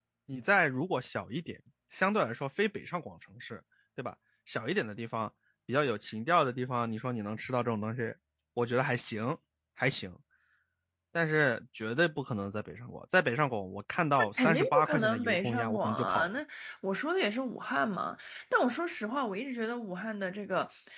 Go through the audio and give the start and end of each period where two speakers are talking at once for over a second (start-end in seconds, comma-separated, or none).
14.4-16.3